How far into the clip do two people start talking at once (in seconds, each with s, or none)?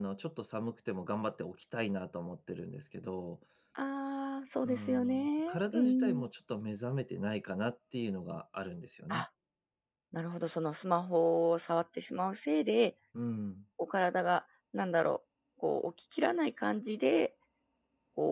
4.6 s